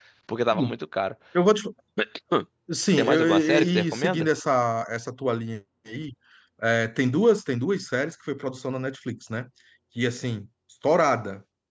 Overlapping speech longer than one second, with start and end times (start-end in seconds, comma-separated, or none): 3.0-4.3